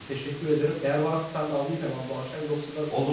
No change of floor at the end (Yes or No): No